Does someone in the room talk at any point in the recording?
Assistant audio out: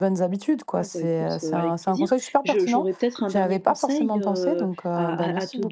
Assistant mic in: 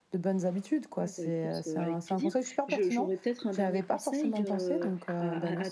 No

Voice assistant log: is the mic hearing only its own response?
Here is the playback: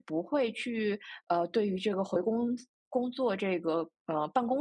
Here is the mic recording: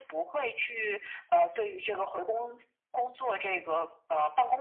Yes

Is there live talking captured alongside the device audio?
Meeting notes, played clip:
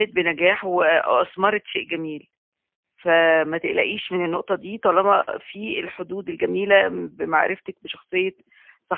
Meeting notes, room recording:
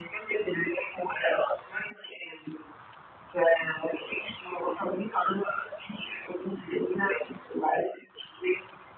No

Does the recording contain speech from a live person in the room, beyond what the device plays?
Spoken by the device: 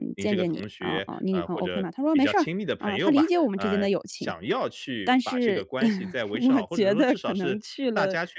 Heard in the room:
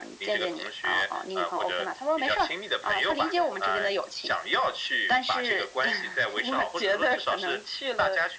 No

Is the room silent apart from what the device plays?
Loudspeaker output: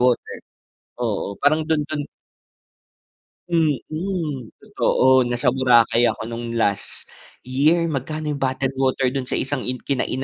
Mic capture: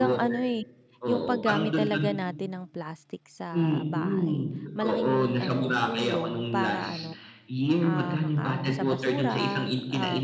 No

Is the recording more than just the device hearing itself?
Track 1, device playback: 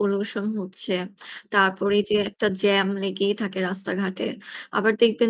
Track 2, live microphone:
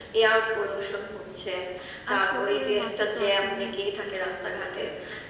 Yes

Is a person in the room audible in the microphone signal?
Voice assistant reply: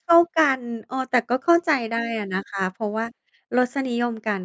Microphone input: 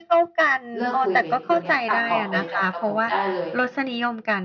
Yes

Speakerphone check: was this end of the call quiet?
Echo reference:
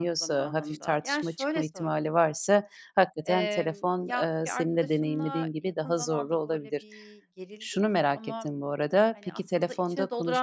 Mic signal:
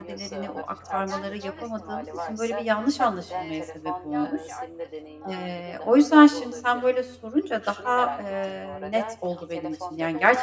No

